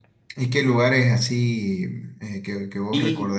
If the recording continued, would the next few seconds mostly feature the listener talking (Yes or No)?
Yes